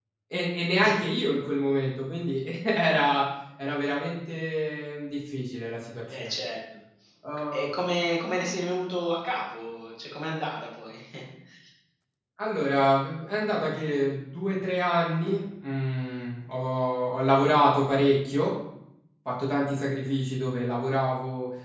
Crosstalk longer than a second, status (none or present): none